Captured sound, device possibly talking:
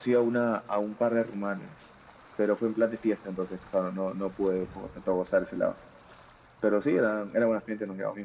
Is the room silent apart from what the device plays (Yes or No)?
Yes